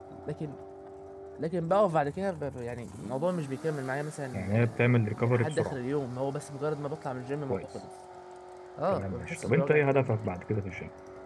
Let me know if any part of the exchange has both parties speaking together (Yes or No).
Yes